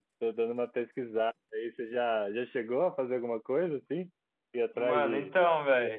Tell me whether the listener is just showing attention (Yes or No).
No